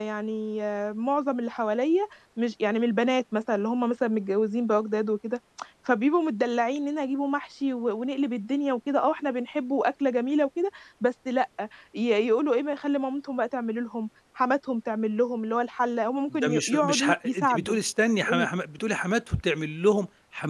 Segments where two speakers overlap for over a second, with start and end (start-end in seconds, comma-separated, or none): 16.3-17.8